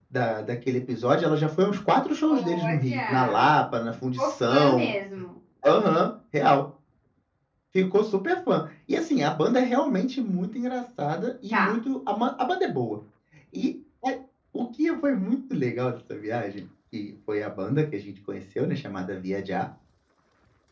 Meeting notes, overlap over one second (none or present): present